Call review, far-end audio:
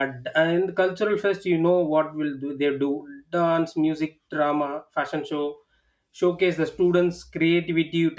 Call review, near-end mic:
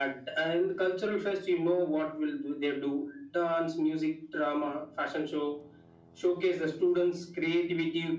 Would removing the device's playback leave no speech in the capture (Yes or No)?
Yes